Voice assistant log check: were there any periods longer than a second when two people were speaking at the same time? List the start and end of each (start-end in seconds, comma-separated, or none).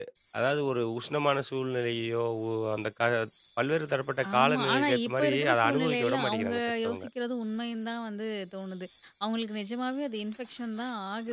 4.4-7.0